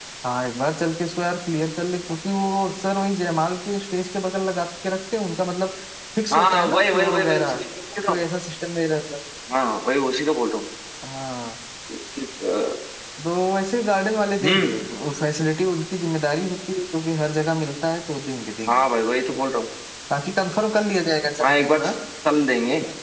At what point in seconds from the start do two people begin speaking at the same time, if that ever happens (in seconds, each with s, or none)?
6.3 s